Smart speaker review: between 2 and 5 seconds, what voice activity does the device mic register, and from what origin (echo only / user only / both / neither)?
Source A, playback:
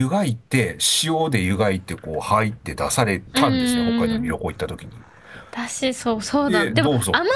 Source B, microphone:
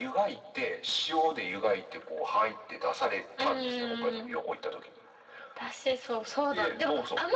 echo only